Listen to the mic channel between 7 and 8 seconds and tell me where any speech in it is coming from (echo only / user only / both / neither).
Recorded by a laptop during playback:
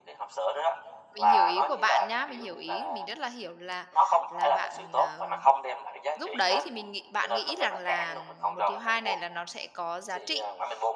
both